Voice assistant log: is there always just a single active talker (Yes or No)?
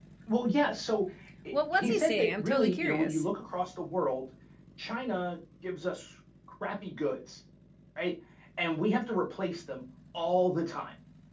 No